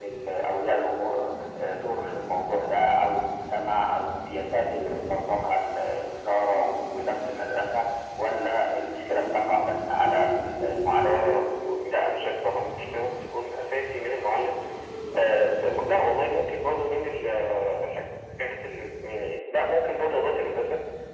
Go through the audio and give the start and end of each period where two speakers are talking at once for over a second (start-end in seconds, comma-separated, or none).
none